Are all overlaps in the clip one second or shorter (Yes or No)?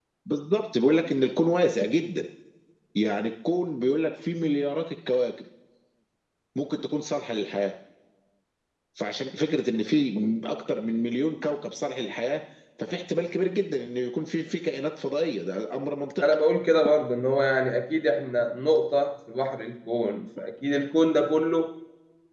Yes